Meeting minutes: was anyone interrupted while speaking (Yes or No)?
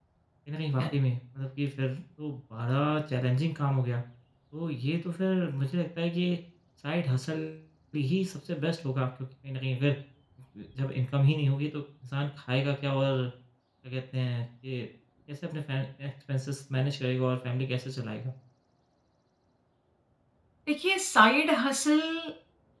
No